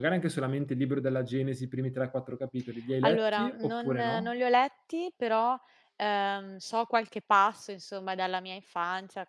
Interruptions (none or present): present